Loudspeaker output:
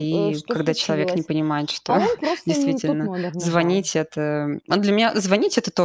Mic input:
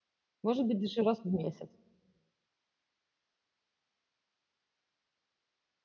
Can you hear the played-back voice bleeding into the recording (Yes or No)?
No